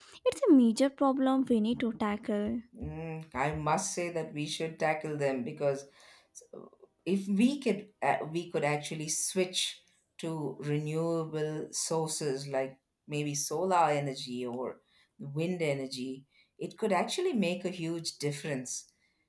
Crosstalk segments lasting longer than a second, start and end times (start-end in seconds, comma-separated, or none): none